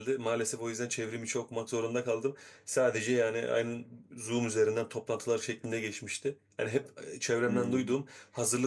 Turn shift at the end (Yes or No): No